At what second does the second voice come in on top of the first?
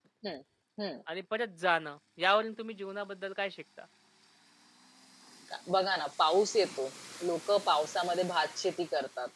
none

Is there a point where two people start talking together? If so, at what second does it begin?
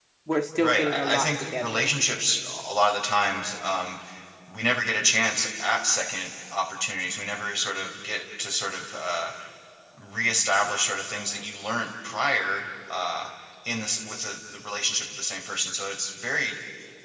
0.6 s

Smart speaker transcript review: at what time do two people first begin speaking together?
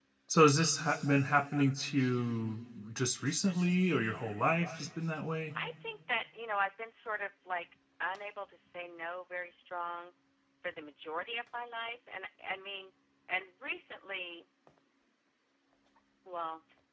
none

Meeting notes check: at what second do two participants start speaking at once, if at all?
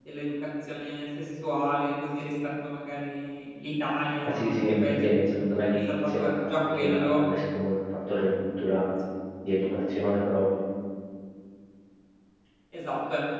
4.2 s

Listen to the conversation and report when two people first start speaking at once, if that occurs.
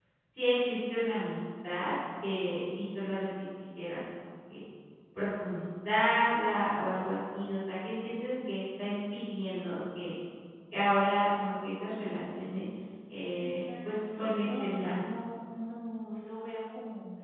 13.4 s

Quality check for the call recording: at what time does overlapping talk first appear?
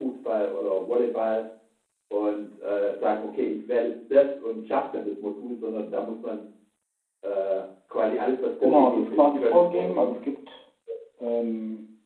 8.6 s

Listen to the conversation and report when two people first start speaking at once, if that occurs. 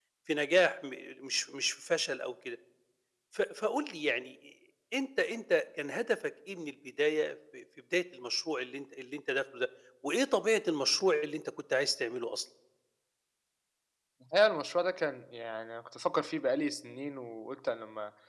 none

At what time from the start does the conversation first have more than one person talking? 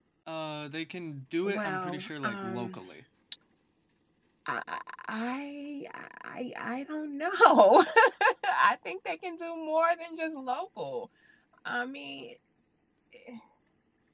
1.4 s

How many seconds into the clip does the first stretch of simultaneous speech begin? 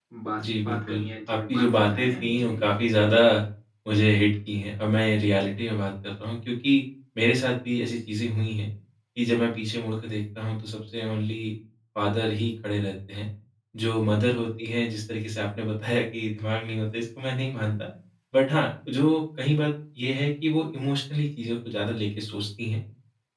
0.6 s

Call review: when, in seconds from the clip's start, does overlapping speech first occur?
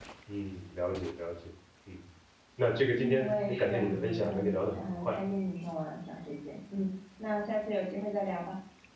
2.9 s

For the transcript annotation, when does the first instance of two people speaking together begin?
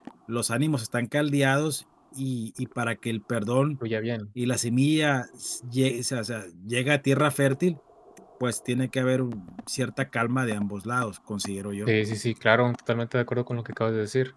none

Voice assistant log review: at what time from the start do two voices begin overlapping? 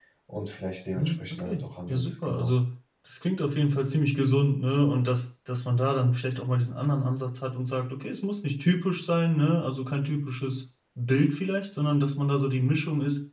0.9 s

